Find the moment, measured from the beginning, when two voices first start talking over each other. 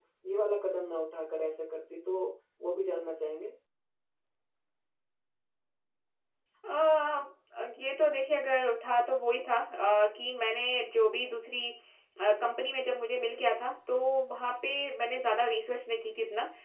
none

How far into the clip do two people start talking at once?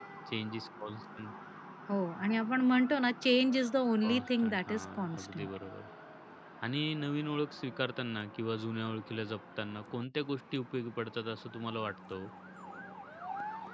4.0 s

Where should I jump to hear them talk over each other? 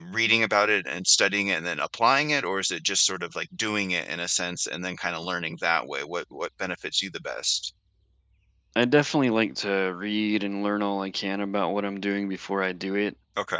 none

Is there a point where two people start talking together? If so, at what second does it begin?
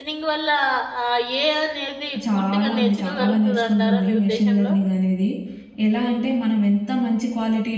2.1 s

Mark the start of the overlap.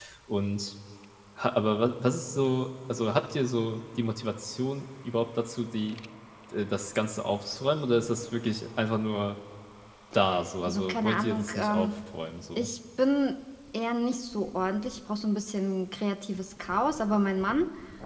10.7 s

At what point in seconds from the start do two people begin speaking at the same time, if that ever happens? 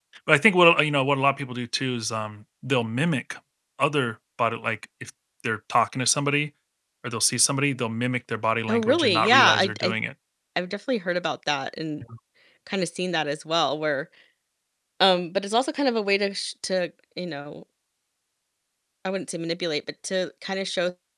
8.7 s

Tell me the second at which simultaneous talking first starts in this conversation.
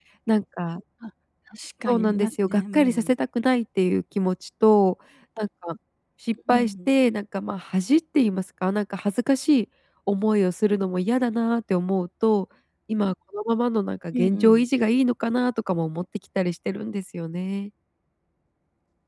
1.9 s

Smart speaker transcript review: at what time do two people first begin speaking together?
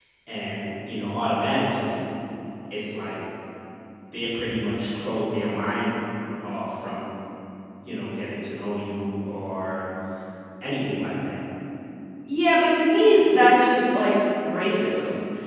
none

